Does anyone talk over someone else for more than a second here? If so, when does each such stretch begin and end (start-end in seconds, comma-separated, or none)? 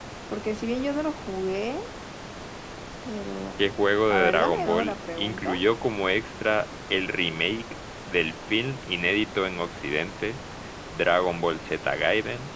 4.1-5.6